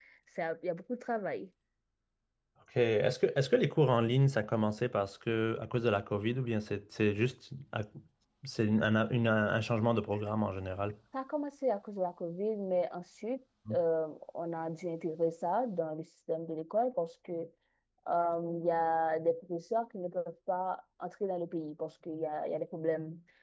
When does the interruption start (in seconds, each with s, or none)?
none